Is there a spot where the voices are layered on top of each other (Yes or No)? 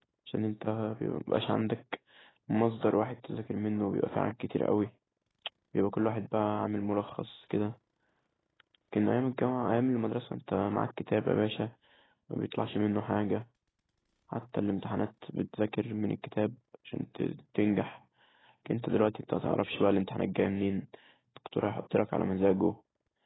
No